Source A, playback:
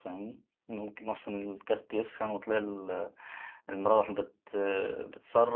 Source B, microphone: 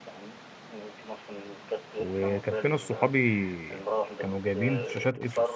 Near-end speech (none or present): present